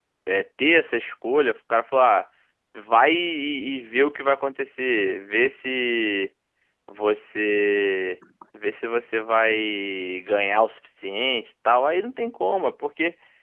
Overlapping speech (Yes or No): No